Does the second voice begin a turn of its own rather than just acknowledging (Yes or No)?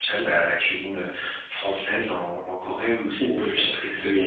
Yes